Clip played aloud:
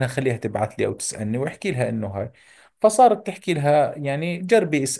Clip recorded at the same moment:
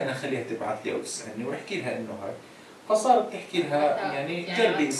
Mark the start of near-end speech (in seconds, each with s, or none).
3.6 s